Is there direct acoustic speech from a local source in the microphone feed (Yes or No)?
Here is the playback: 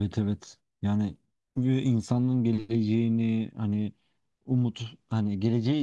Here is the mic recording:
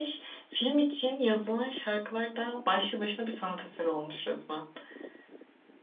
Yes